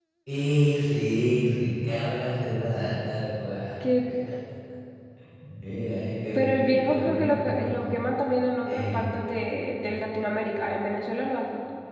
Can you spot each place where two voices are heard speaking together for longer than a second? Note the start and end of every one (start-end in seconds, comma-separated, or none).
6.3-7.9